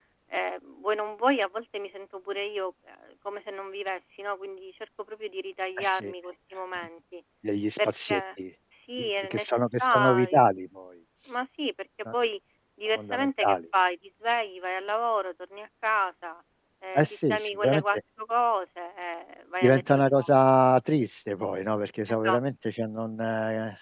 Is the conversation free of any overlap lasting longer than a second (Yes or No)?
No